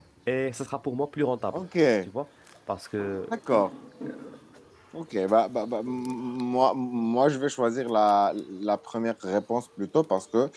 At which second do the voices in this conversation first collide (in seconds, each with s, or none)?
none